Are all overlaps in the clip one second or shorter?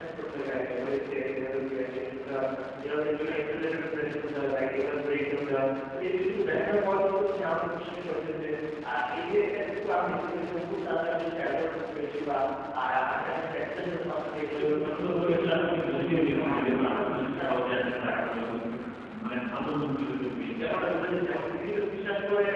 No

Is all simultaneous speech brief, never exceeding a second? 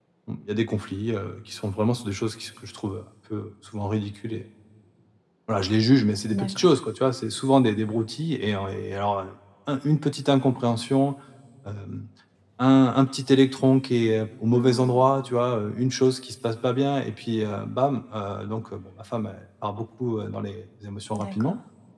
Yes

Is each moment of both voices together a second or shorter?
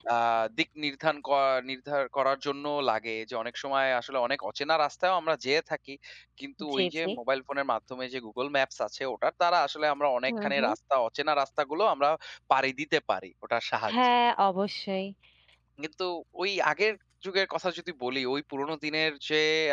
Yes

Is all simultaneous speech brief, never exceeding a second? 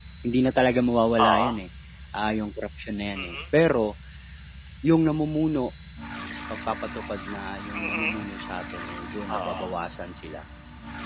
Yes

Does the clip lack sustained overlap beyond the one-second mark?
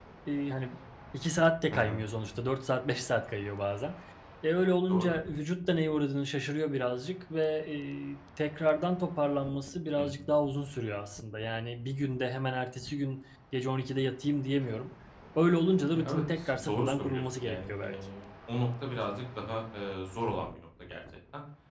No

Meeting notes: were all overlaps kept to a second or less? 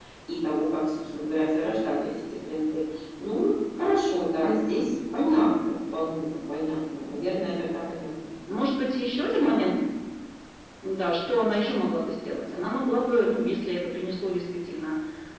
Yes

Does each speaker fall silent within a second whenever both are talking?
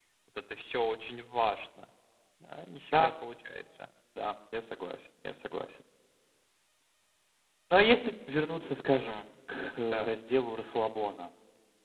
Yes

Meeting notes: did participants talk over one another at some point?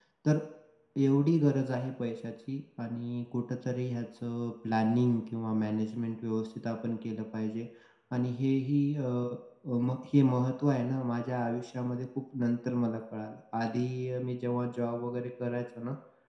No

